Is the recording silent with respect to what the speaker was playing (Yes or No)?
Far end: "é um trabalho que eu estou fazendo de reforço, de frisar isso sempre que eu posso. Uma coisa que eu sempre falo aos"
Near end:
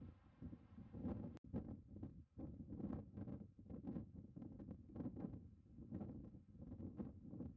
Yes